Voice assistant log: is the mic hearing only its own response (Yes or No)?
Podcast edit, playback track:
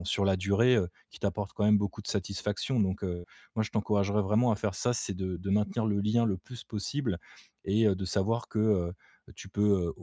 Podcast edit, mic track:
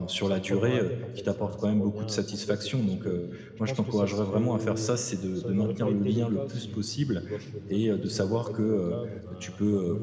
No